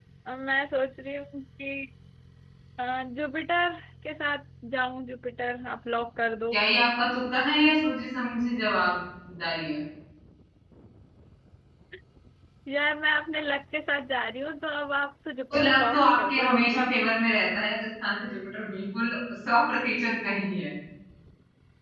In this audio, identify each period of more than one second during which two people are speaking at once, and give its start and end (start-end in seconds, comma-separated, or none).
15.5-16.9